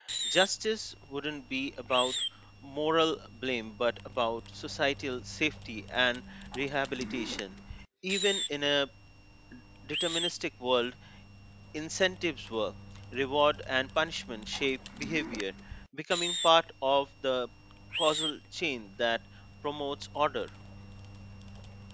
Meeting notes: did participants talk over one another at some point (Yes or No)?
No